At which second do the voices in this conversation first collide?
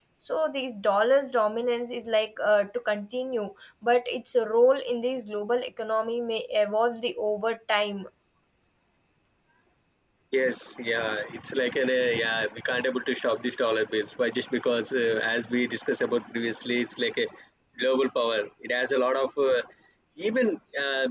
none

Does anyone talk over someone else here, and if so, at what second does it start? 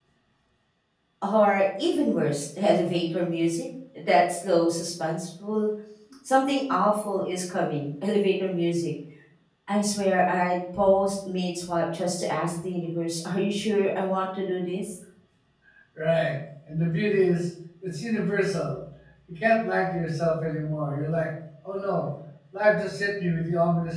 none

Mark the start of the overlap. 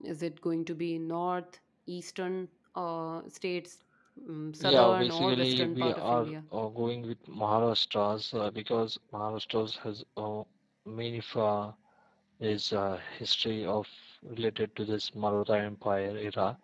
4.6 s

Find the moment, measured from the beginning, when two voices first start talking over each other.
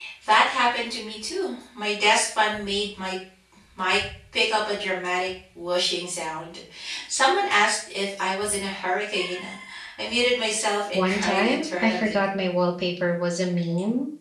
10.9 s

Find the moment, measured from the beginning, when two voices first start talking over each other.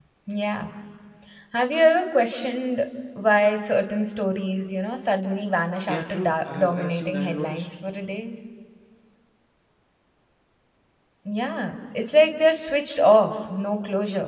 5.9 s

